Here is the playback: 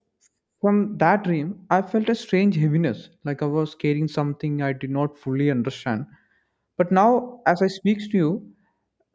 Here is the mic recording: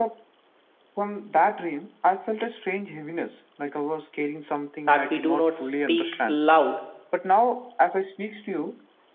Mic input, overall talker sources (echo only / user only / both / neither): both